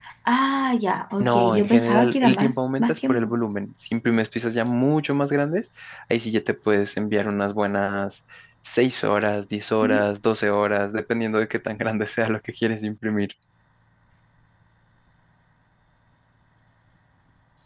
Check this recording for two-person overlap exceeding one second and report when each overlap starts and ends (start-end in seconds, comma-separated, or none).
1.2-3.3